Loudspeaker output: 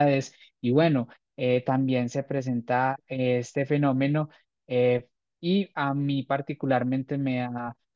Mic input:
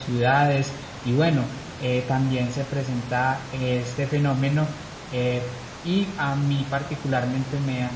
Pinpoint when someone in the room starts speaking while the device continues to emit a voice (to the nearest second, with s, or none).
none